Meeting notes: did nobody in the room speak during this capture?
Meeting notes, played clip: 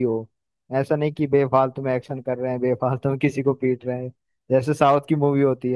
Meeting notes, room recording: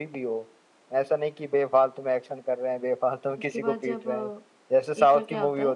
No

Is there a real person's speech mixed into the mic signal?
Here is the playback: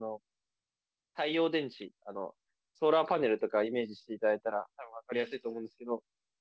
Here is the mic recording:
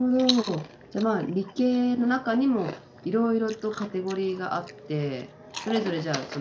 Yes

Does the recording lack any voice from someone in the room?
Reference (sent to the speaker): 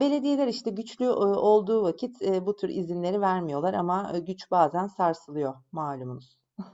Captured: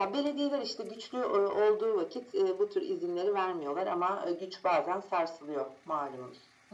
Yes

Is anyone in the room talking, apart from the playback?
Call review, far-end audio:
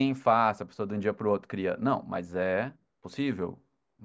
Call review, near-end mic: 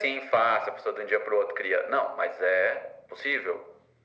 No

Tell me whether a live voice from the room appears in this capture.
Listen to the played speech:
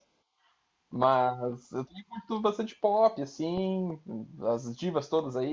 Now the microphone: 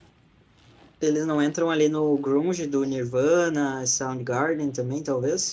Yes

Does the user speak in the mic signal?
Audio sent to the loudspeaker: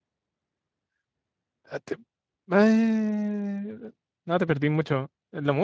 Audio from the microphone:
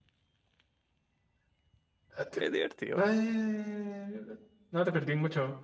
Yes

